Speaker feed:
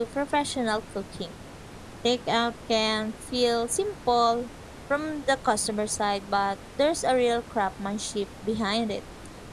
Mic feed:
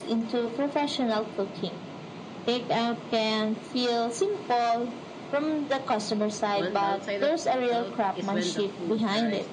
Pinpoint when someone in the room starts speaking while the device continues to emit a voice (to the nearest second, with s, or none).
7 s